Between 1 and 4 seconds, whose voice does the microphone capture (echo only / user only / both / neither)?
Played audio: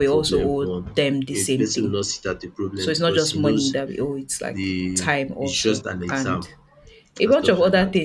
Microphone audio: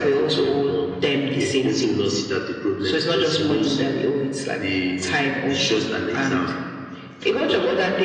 echo only